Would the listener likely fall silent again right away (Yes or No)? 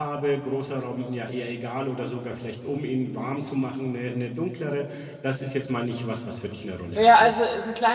No